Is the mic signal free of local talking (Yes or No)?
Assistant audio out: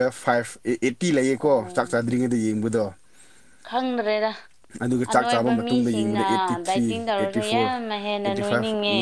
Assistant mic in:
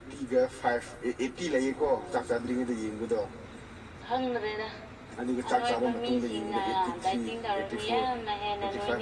Yes